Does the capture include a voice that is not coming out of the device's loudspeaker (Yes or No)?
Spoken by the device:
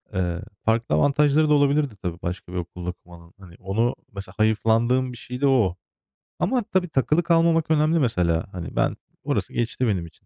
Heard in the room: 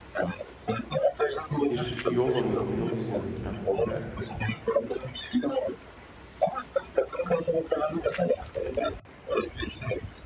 Yes